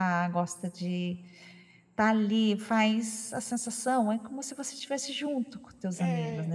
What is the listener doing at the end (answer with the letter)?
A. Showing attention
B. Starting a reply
B